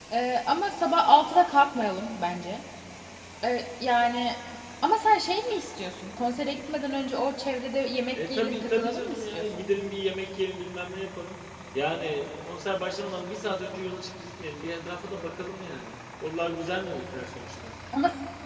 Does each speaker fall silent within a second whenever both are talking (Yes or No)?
No